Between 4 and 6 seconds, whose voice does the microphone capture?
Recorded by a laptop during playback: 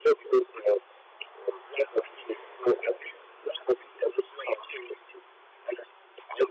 echo only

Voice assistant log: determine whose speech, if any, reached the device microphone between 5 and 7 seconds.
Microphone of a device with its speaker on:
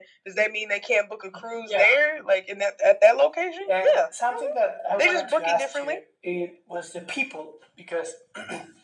echo only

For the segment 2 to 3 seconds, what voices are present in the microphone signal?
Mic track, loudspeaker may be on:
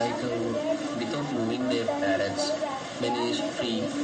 both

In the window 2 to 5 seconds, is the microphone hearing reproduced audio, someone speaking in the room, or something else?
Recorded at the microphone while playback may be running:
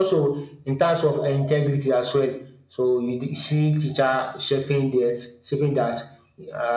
echo only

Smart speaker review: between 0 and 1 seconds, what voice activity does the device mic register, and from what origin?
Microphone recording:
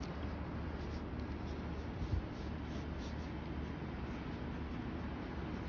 neither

